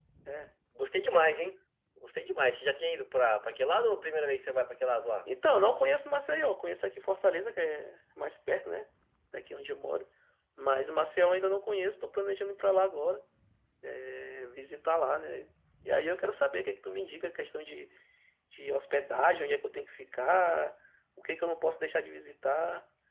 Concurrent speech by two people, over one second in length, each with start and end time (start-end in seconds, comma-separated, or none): none